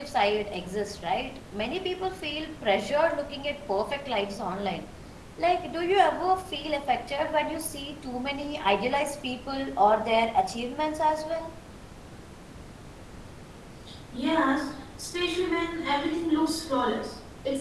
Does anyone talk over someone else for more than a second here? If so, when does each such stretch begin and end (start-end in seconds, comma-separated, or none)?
none